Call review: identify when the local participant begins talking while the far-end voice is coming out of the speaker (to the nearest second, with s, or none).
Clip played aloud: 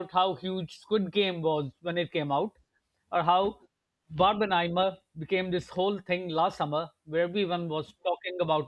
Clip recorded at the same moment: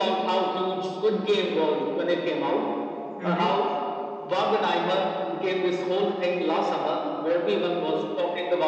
3 s